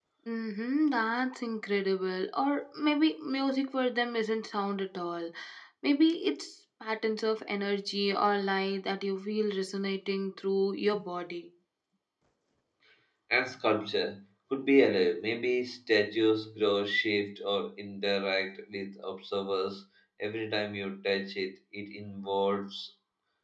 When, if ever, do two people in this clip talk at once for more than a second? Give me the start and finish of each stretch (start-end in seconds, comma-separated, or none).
none